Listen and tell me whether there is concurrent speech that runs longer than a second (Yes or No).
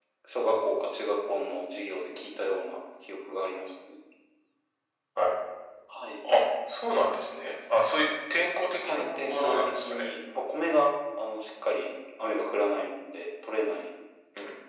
Yes